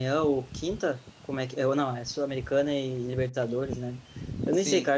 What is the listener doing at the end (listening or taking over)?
listening